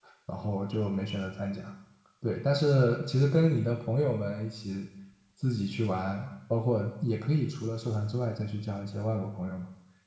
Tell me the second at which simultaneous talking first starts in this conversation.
none

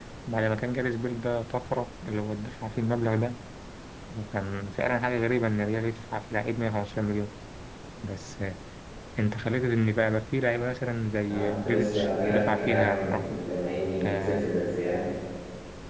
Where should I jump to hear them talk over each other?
11.2 s

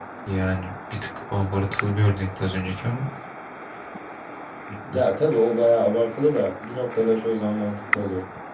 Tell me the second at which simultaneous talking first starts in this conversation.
none

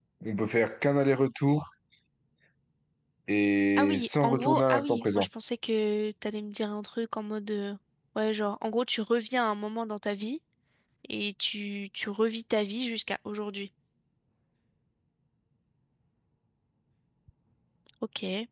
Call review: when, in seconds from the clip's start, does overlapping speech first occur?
3.8 s

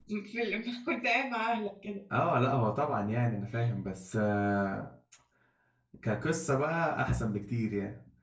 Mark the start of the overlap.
none

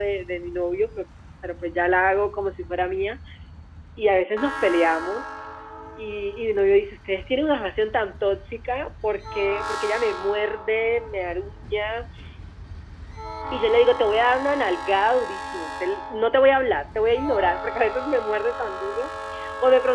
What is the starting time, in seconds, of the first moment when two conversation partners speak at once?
none

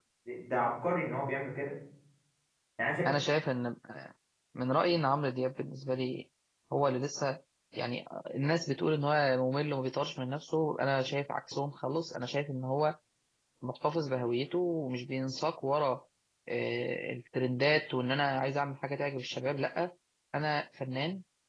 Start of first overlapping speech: none

